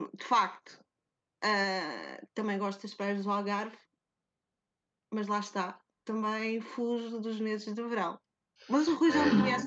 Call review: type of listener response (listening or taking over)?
taking over